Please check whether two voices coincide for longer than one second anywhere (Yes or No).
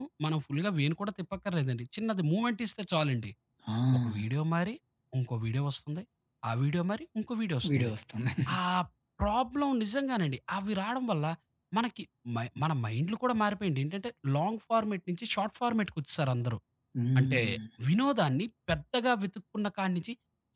No